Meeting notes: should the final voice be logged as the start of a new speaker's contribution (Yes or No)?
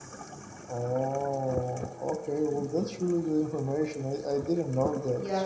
Yes